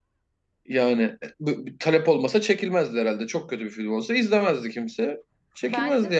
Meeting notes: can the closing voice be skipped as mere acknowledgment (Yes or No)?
No